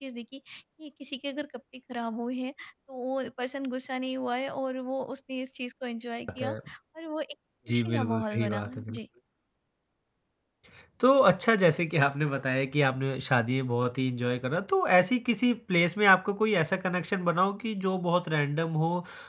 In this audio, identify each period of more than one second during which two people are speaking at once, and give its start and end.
7.7-9.0

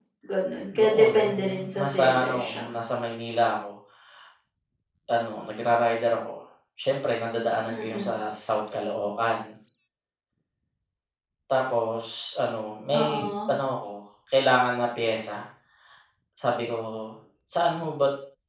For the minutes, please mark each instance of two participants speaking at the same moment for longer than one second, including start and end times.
0.8-2.7

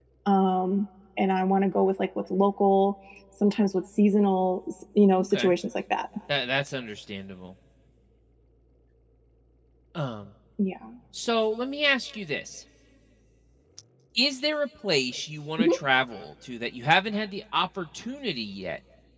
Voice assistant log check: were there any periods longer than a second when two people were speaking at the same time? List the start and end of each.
none

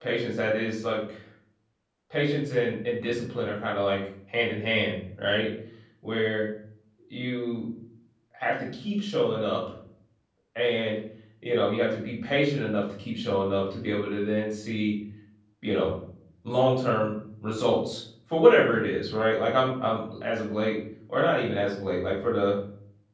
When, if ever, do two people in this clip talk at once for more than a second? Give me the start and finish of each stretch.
none

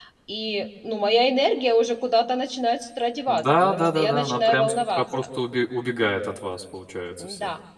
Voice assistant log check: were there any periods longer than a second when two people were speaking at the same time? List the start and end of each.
3.3-5.0

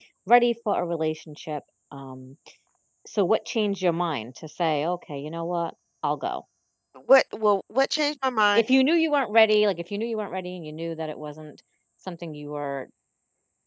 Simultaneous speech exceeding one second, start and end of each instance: none

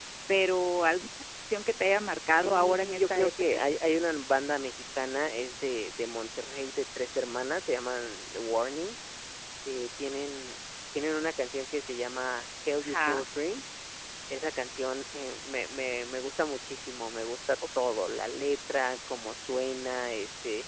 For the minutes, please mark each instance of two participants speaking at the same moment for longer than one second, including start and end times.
2.4-3.6

